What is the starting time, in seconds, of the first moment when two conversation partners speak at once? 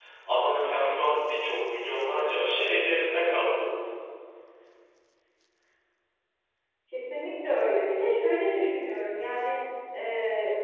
none

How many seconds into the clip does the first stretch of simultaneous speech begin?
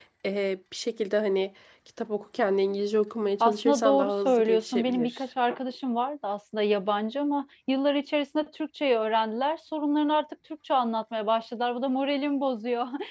3.4 s

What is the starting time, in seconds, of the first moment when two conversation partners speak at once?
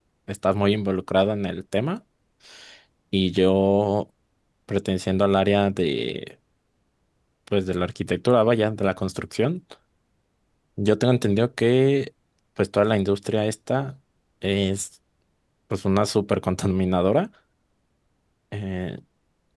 none

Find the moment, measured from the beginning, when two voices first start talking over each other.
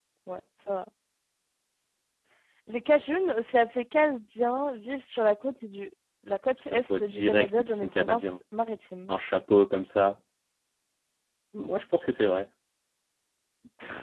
6.6 s

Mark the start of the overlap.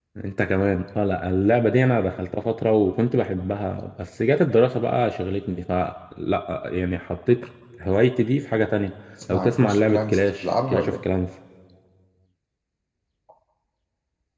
9.3 s

